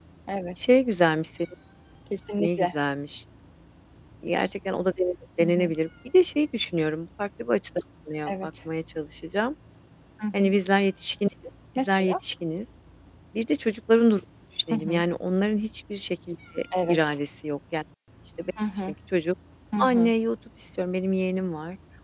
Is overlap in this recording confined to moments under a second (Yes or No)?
Yes